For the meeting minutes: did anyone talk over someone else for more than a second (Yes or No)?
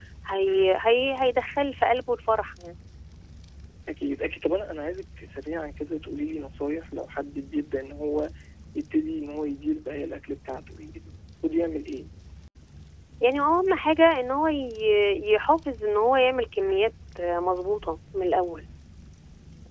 No